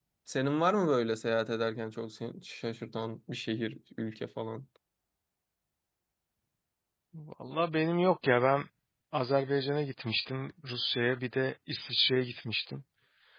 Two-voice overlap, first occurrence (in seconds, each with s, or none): none